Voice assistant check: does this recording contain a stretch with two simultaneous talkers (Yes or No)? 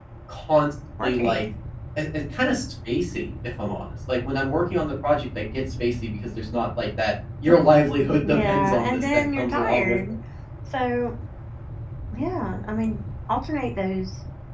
Yes